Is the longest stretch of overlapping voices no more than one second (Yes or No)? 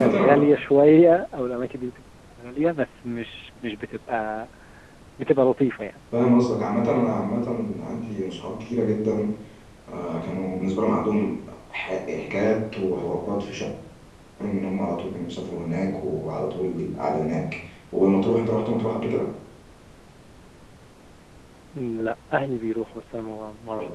Yes